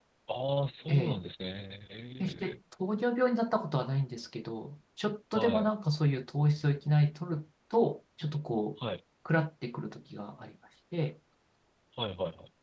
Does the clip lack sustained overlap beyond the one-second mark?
Yes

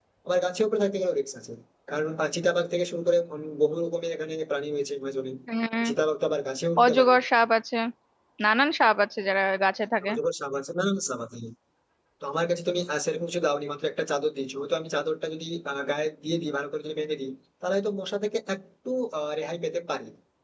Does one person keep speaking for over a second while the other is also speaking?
No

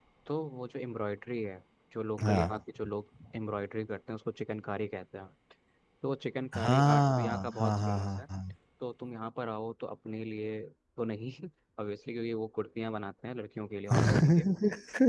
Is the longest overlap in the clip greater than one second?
Yes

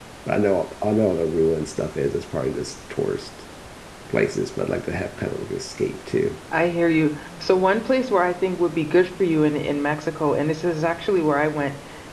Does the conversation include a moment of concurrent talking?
No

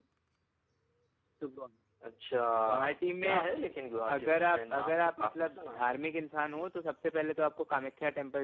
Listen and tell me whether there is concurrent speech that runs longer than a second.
Yes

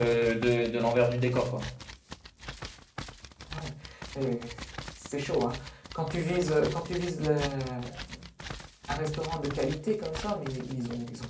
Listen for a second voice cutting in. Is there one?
No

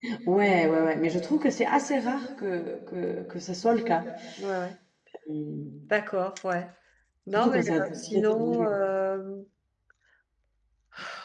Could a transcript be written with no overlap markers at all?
No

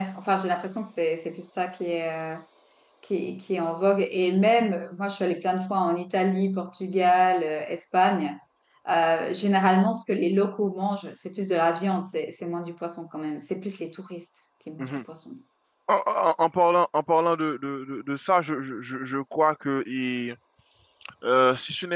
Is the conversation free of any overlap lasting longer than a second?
Yes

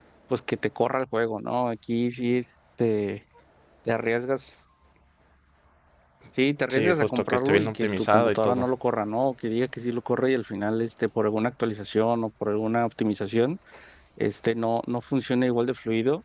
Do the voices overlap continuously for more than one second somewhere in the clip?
Yes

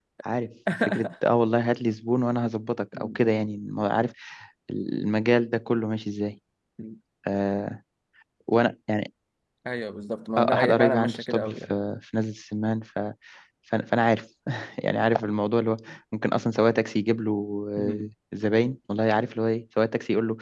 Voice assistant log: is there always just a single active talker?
No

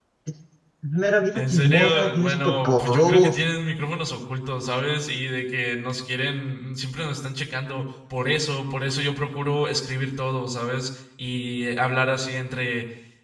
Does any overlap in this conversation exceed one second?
Yes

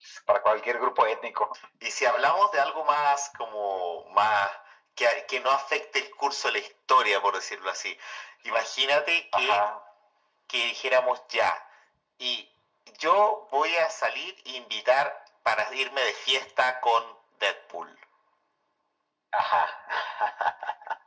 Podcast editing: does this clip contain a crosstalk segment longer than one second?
No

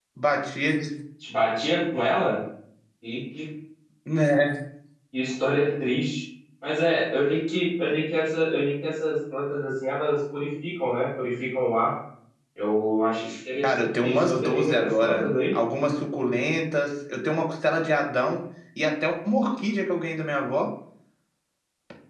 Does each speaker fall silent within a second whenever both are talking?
No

